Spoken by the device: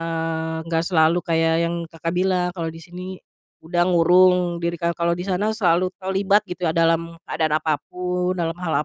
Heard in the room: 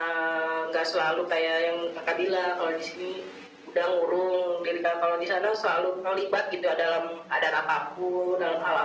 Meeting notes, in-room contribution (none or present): none